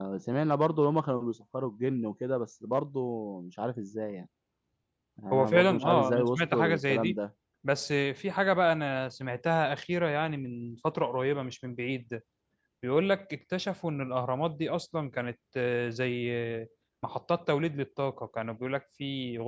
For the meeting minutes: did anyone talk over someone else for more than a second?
Yes, from 5.3 s

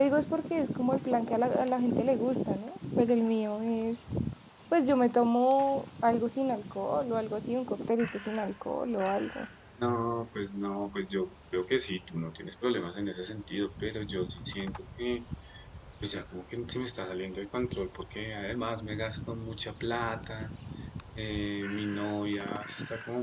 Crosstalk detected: No

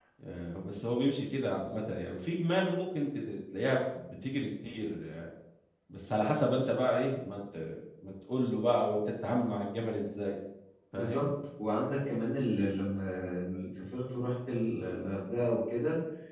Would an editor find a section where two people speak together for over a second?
No

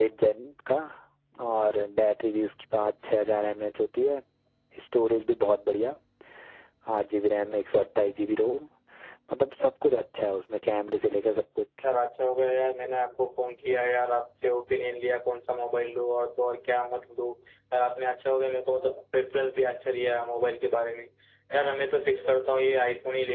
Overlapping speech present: No

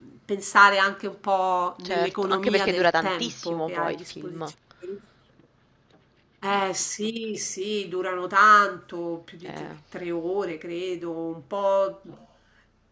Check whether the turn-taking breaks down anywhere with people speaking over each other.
Yes, from 1.8 s

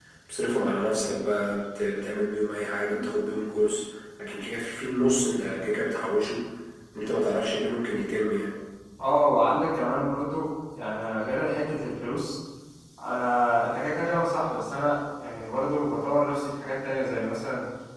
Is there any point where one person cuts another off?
No

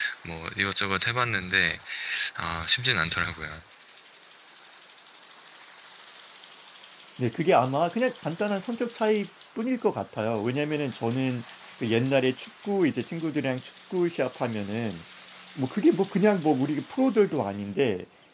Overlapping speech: No

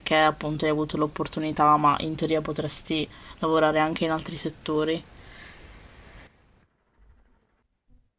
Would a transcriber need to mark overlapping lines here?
No

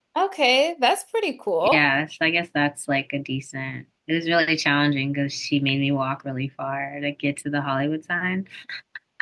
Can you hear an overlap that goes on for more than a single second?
No

